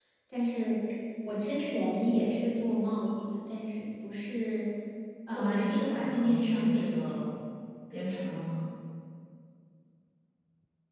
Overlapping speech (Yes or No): Yes